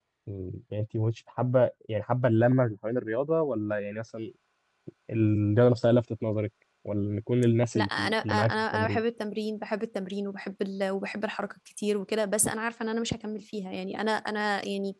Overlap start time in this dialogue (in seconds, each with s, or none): 7.8 s